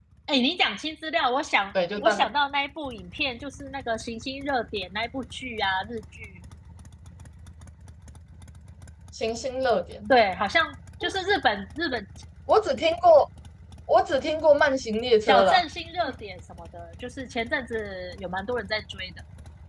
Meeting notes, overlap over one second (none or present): none